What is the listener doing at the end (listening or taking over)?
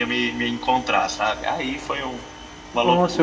taking over